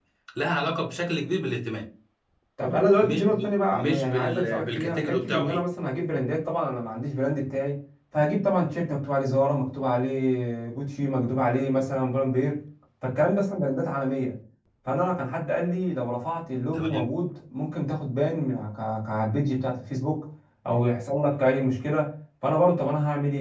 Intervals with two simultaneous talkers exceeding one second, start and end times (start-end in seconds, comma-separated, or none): 3.0-5.6